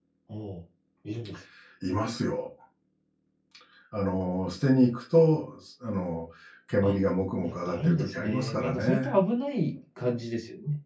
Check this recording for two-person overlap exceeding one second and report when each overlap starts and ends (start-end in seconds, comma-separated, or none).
7.4-9.1